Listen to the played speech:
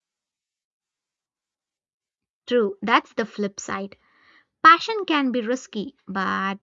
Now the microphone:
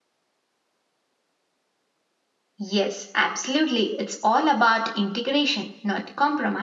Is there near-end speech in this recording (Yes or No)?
Yes